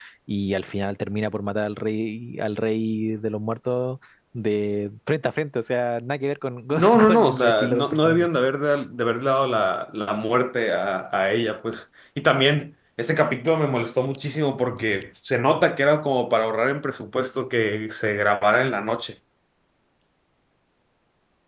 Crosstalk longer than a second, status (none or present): present